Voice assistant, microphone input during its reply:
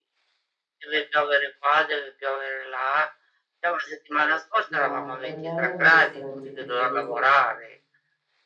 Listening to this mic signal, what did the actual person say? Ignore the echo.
No, parliamo di ristoranti preferiti,

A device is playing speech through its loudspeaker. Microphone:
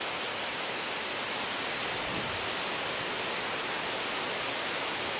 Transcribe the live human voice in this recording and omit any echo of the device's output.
none

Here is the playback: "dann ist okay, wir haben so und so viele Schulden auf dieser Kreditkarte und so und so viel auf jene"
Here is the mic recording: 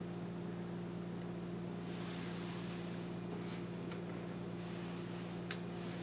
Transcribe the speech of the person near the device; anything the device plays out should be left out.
none

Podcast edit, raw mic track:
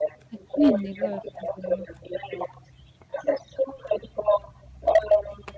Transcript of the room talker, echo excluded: E quindi? Qual è il problema.

